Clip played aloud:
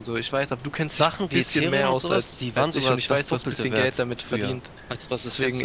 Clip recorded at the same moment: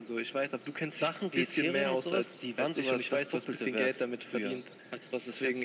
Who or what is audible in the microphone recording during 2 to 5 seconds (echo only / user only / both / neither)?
echo only